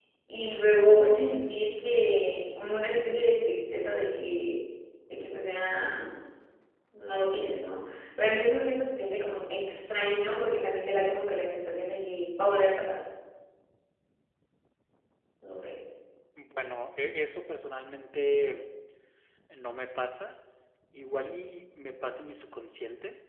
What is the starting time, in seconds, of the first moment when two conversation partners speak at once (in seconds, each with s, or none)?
none